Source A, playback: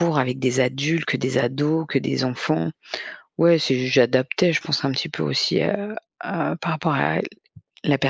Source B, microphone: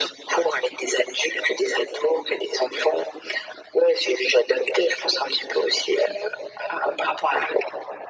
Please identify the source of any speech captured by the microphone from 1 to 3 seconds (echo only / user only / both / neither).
echo only